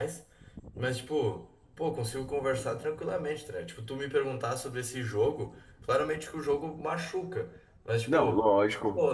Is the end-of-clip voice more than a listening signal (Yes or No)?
No